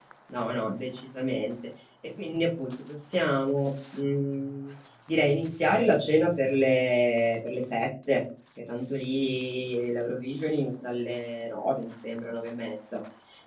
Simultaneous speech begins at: none

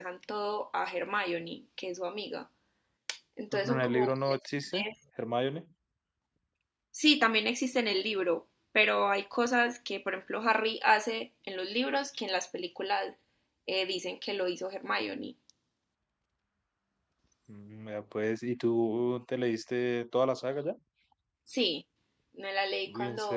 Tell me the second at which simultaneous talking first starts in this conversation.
3.5 s

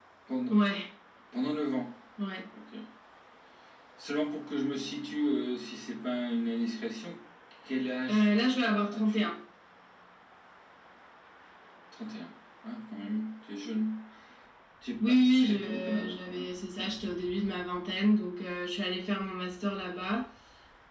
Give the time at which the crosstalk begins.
8.1 s

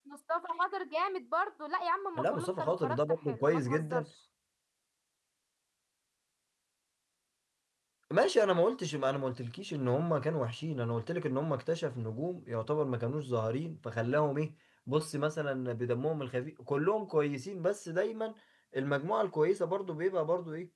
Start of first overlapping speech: 2.1 s

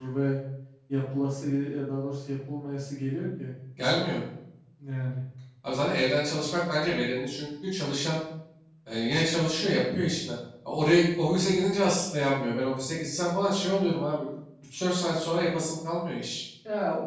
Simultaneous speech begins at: none

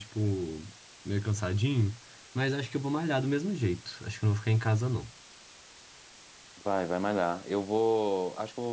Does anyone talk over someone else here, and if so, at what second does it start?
none

